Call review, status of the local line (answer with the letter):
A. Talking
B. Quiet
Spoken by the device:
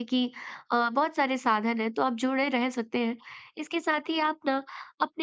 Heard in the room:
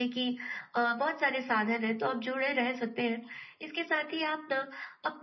B